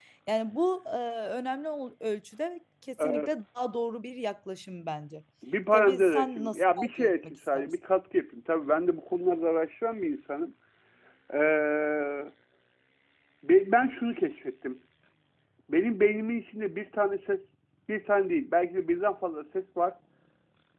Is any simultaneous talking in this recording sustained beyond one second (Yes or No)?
Yes